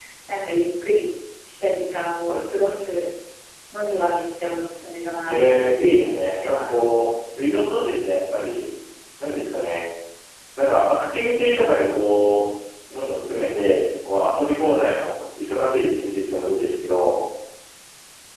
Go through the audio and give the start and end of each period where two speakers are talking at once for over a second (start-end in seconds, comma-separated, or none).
5.3-6.7